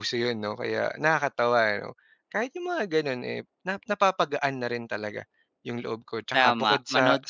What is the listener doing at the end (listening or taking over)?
taking over